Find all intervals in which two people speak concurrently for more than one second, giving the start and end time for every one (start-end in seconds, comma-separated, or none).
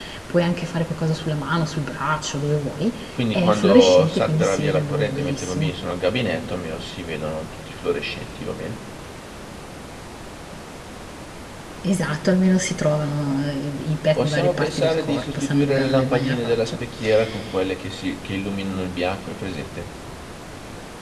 3.3-5.8, 14.2-16.7